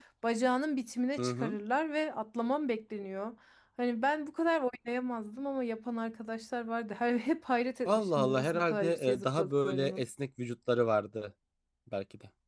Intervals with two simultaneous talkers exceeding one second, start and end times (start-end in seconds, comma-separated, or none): 7.8-10.0